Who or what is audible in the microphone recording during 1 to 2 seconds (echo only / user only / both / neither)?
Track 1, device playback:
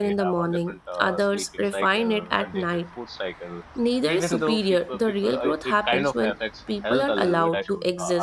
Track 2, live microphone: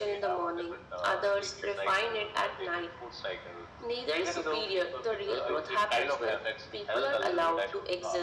echo only